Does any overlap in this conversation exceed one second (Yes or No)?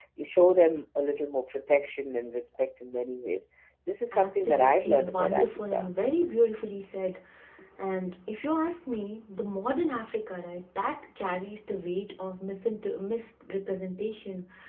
Yes